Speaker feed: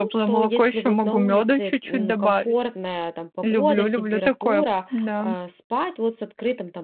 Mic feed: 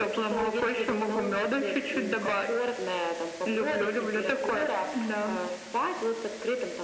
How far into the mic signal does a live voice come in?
none

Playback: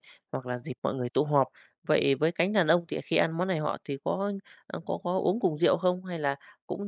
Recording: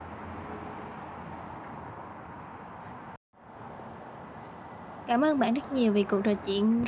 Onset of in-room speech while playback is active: 5.0 s

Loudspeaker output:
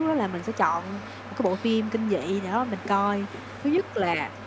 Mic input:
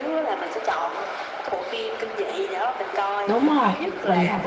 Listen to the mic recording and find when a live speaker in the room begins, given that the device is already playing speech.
3.3 s

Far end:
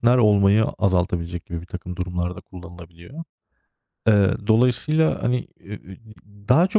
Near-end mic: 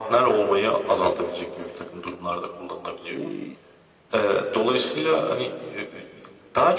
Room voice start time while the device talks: 3.1 s

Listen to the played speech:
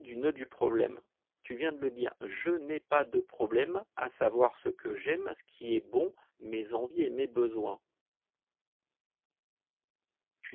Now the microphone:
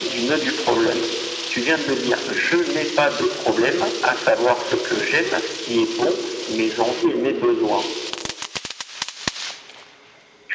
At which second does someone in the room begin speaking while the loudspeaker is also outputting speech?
none

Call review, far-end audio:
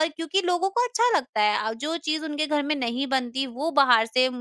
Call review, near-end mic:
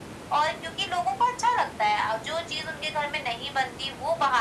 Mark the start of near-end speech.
none

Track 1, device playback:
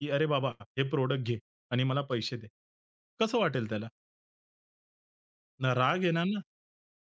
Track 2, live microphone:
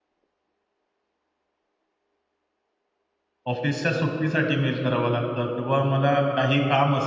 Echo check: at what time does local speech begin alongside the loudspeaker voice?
3.5 s

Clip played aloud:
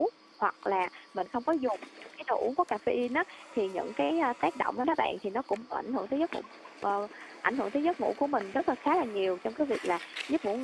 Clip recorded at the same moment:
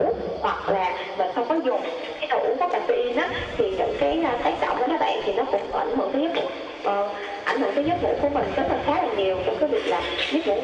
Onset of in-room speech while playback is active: none

